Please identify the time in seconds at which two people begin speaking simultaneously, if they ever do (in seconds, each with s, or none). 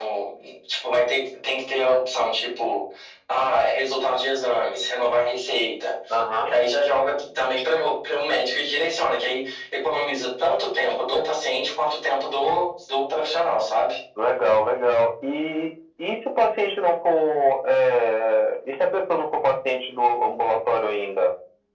none